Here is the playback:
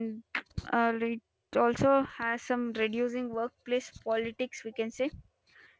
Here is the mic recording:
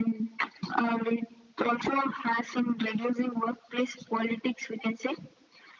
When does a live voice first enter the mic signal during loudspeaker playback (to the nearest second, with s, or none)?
none